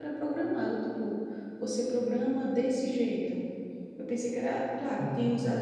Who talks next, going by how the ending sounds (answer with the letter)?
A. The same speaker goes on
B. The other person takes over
A